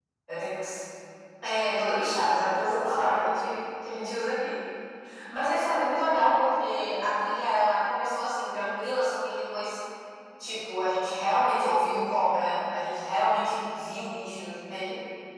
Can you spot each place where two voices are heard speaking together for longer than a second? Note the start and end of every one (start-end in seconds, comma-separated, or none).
1.8-3.3